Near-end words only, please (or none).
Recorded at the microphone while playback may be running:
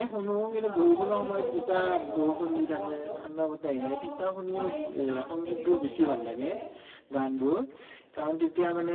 অ সলনি কৰিব পাৰে মোৰ আ মনটোক ত মই তোমাক সুধিব বিচাৰো যে